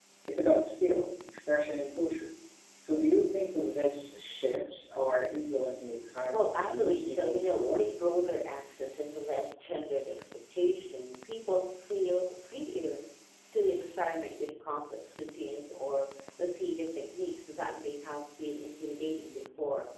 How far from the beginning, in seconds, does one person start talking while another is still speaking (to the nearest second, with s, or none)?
6 s